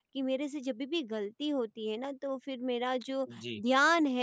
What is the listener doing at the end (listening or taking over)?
listening